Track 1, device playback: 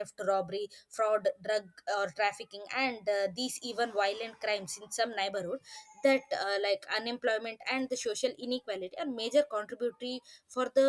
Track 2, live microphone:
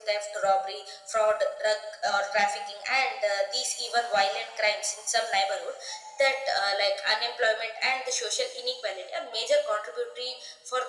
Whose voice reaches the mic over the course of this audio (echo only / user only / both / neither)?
echo only